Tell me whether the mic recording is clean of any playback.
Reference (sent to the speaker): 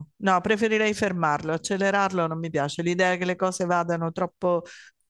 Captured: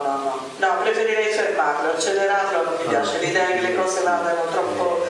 No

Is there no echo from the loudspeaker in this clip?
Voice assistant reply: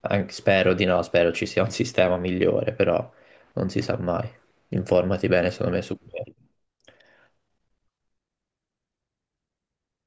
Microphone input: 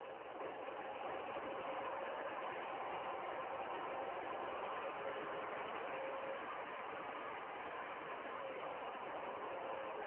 Yes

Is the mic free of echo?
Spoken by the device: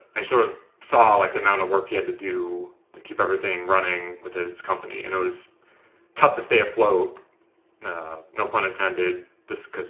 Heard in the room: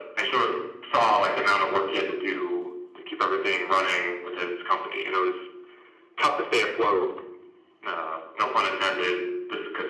No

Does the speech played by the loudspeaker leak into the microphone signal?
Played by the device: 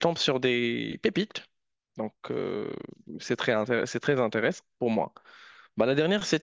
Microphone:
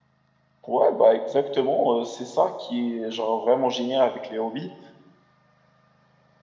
No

